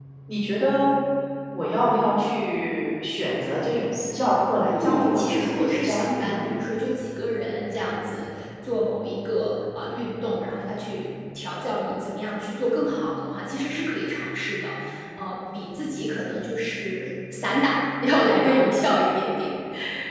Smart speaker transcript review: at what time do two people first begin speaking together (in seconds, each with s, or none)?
4.7 s